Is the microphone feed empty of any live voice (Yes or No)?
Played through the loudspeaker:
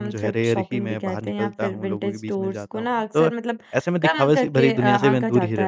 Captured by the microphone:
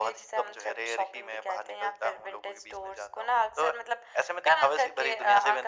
Yes